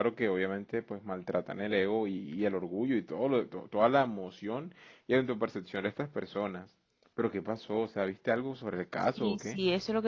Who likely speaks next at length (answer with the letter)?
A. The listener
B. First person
A